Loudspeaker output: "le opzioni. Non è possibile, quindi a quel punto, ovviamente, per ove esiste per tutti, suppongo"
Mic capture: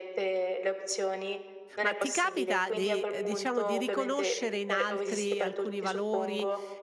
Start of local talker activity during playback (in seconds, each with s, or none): 1.8 s